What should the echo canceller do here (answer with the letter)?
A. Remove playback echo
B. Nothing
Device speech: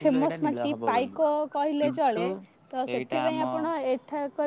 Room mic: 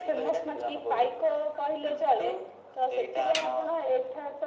A